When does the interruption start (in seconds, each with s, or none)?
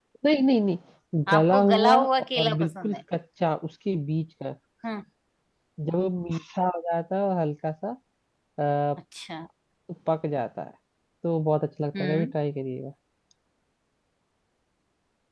1.3 s